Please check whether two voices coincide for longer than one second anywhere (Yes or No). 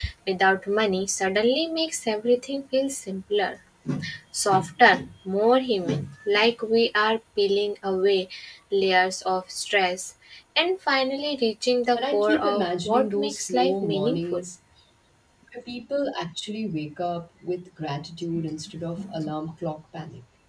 Yes